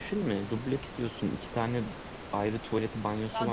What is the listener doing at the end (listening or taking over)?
taking over